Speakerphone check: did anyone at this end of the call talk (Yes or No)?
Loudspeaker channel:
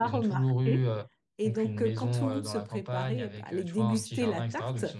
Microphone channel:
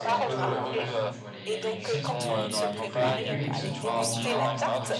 Yes